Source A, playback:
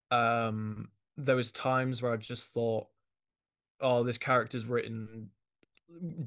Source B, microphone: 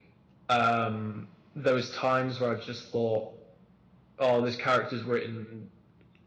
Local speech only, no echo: none

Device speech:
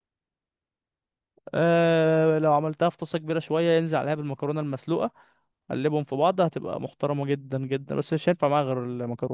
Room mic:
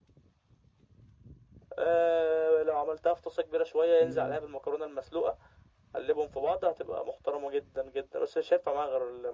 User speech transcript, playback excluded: حلو أوي

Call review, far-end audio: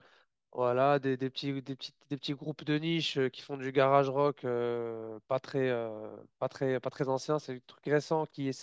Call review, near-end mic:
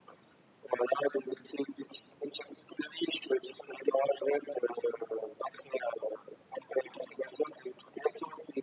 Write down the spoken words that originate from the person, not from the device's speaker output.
none

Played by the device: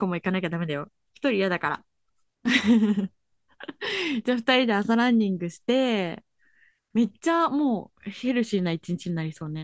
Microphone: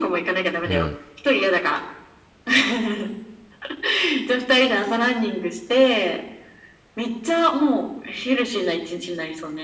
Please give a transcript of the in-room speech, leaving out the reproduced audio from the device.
うん

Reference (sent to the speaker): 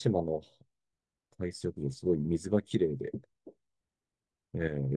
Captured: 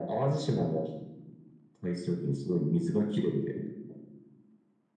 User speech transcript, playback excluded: none

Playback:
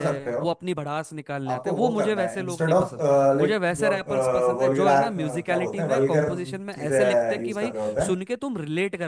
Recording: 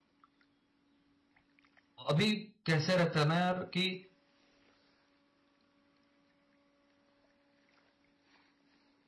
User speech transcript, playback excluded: अभी कैसे रहता है ना यार कि

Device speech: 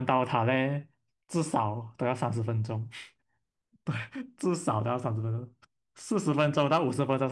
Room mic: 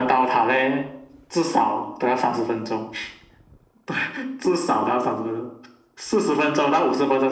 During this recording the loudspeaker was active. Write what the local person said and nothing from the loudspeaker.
none

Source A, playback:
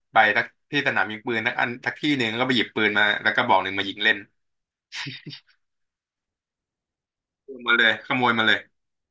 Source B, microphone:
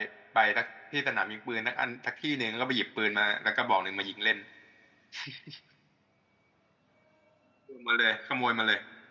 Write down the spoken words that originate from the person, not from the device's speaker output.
none

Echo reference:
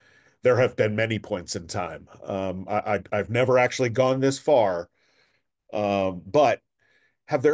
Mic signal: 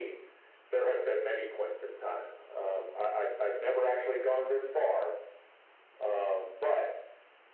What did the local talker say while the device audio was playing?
none

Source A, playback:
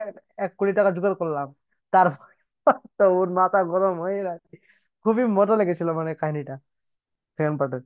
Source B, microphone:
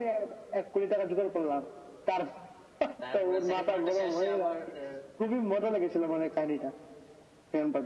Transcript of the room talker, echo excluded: তারপরে সেকেন্ড পার্টে শেষে আবার আহ,

